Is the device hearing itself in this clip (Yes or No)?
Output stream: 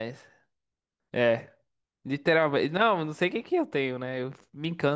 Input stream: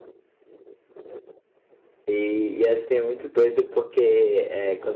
No